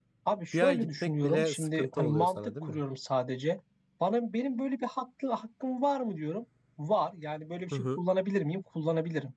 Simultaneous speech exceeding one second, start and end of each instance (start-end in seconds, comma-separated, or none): 0.5-2.8